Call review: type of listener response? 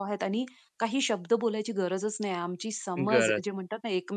listening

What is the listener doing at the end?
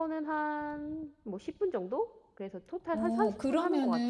taking over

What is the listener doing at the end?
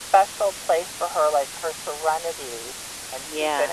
taking over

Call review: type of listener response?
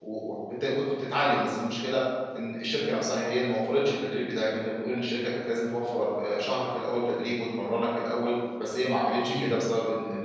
listening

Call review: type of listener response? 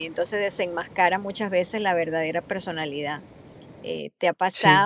listening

